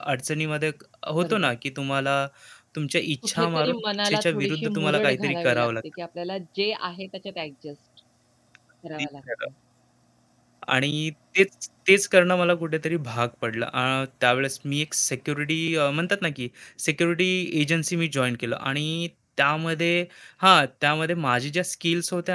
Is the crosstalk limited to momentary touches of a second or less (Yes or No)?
No